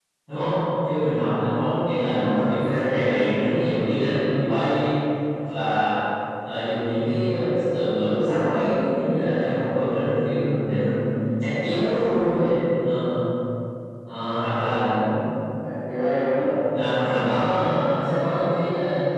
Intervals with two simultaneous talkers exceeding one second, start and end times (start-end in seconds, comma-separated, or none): 2.0-3.2